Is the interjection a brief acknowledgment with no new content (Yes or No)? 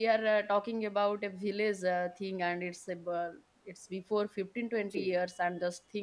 Yes